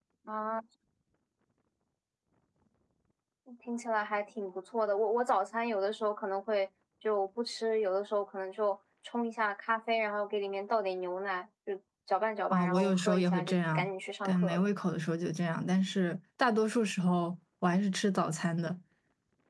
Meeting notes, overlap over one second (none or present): present